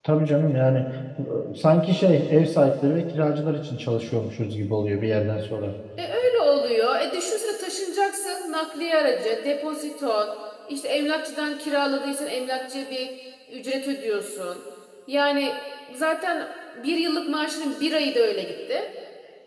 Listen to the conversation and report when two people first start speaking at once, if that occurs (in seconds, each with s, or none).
none